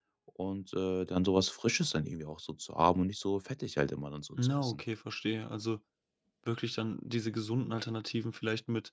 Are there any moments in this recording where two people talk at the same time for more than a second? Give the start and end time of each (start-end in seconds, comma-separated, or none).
none